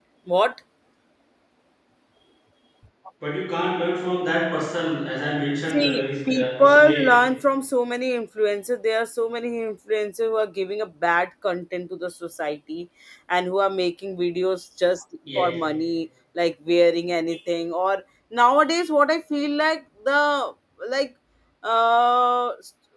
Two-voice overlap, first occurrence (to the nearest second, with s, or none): 6 s